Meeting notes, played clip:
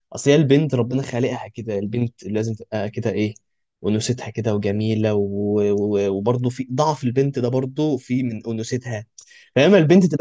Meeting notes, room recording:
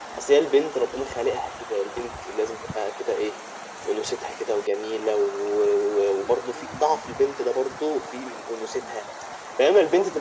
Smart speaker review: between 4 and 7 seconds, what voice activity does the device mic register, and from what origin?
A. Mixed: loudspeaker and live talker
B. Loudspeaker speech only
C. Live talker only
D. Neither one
B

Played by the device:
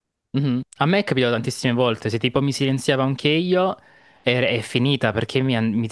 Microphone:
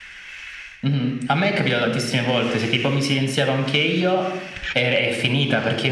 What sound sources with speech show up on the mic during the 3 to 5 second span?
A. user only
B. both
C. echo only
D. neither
C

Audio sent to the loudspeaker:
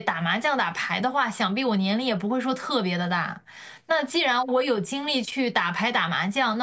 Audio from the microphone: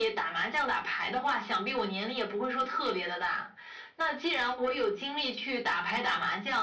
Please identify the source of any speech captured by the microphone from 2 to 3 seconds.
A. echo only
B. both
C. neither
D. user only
A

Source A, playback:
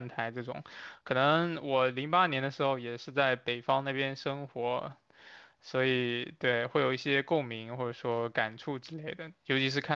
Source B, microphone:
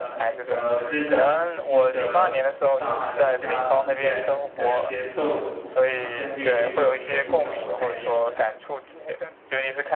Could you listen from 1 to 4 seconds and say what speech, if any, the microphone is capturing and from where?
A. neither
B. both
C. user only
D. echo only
B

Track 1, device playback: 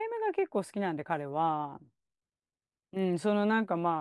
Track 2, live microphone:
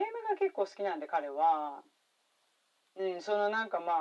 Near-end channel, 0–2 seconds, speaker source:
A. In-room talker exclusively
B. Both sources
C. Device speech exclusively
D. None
C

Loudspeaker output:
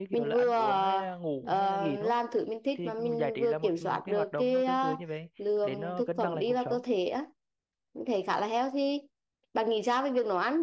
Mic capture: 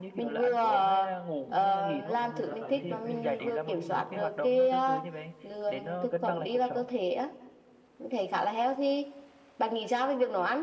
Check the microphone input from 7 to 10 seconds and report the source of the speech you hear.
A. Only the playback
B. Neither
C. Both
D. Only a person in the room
A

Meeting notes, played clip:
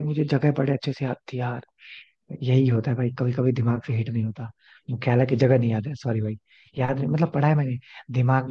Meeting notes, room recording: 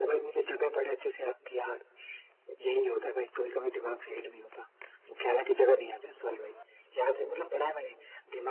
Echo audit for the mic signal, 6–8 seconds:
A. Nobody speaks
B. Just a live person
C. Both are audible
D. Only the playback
D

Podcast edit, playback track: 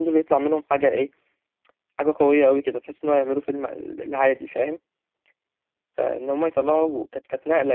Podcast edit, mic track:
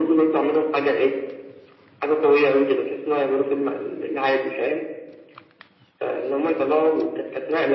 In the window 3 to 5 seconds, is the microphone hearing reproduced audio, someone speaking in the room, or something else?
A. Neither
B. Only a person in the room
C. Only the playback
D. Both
C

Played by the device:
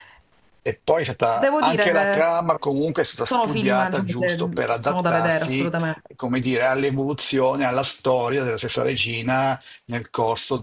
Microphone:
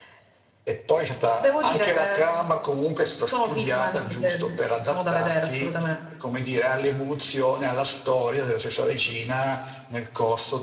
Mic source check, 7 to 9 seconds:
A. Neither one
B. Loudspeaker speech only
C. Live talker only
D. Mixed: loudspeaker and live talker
B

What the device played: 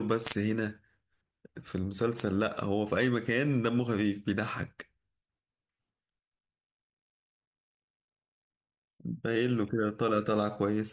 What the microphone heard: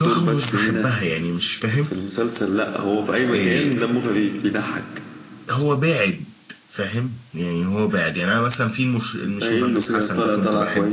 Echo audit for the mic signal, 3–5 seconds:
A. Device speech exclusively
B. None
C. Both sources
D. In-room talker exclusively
C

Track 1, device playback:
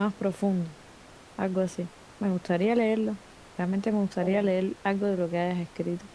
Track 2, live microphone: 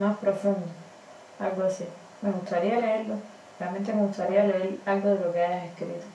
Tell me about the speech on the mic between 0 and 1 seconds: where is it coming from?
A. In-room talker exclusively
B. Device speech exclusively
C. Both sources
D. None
B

